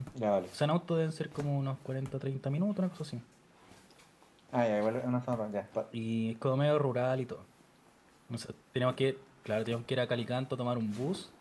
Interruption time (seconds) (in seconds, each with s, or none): none